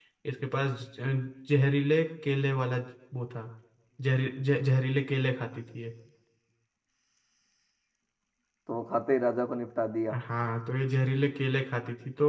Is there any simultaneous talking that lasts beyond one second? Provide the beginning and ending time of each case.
none

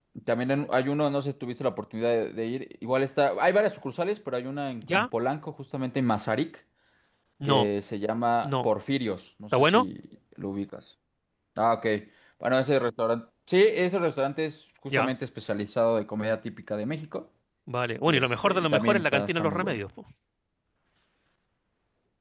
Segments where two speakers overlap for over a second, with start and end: 18.1-19.8

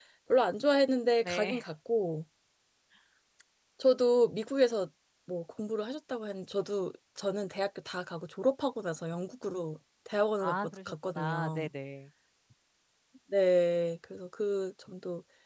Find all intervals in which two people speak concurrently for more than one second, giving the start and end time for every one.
10.4-11.7

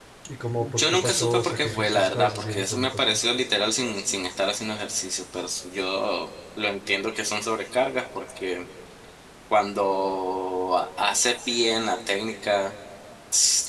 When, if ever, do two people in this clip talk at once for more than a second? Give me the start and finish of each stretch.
0.6-3.2

